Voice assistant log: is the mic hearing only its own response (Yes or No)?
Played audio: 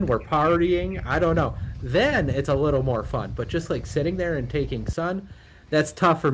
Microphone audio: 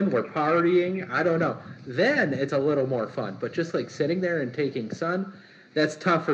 Yes